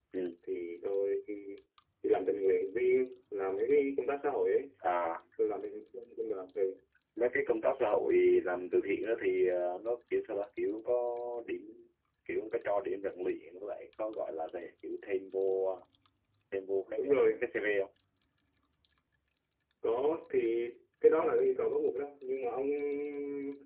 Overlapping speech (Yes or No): No